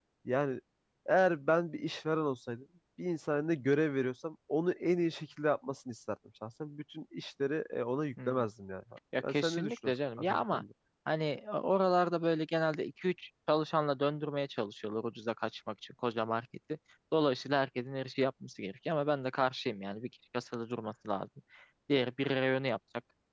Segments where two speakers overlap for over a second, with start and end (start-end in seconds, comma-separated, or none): 9.3-10.6